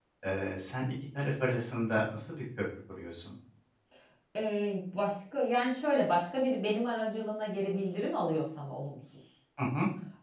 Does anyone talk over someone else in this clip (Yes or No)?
No